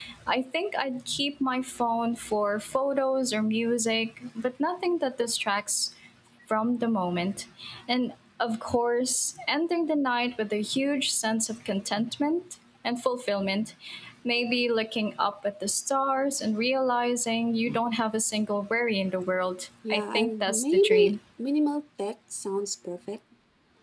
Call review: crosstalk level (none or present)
present